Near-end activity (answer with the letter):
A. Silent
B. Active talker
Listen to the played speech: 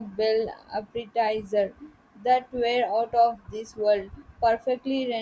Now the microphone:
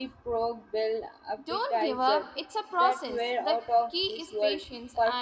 B